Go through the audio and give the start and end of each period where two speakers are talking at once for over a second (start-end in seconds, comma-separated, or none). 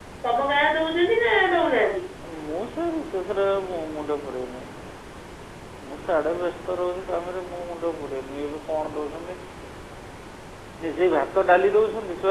none